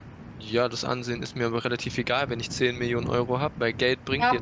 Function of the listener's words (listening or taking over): taking over